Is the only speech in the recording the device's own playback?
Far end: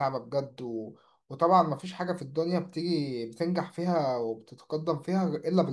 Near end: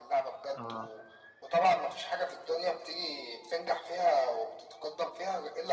No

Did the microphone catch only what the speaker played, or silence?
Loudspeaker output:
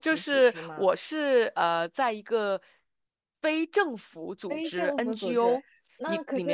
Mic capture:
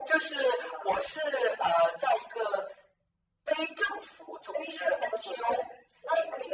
Yes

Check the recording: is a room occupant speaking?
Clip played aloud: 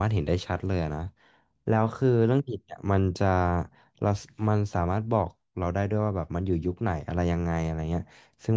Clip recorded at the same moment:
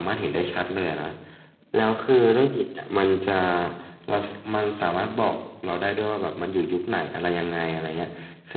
No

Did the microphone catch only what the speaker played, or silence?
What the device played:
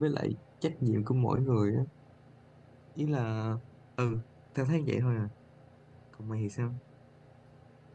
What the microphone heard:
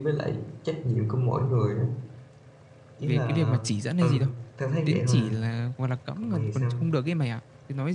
No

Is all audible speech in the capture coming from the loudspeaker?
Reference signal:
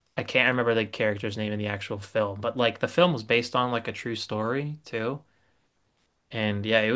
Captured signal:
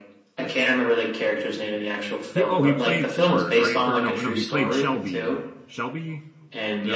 No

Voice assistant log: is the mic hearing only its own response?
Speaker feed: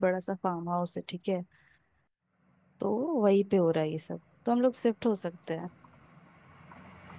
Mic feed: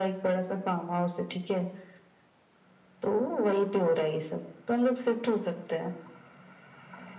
Yes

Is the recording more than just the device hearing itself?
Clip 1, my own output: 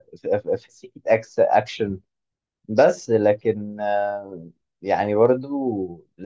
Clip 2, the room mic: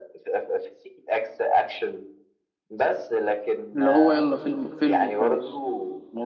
Yes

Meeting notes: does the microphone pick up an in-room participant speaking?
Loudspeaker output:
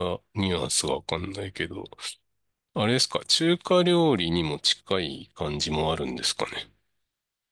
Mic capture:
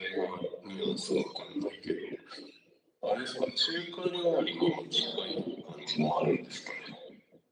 Yes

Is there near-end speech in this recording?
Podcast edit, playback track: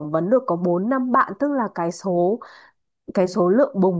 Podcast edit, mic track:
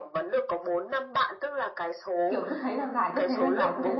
Yes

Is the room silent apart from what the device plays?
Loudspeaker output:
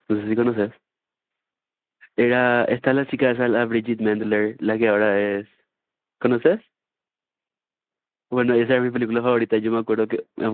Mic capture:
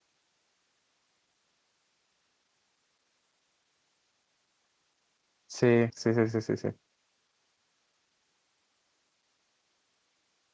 No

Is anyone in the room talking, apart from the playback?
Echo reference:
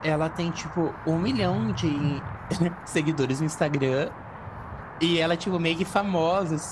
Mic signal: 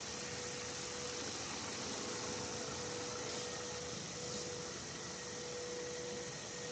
No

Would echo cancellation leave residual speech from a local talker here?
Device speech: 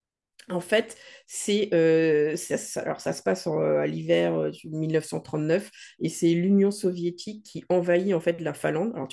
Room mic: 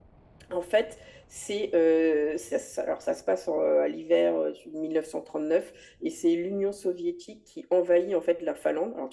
No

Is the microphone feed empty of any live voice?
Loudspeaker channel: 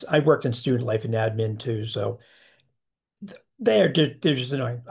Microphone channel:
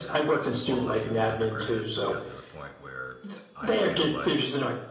No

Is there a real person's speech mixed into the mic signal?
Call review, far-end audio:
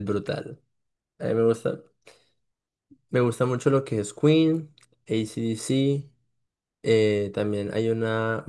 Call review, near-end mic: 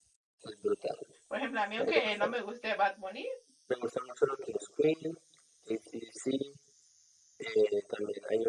Yes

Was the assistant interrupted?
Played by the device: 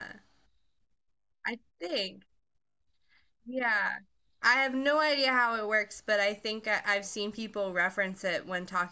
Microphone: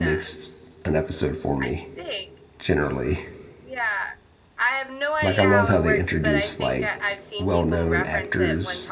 Yes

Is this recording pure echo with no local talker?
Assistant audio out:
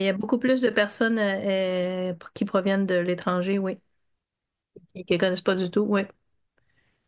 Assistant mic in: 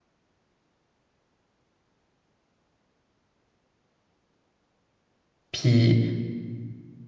No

